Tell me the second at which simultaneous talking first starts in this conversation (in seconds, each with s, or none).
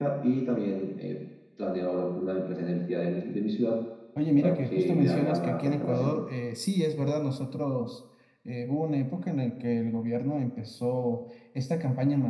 4.4 s